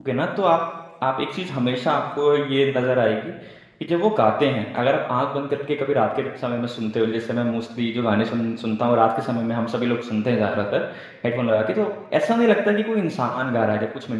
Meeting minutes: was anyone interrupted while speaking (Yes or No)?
No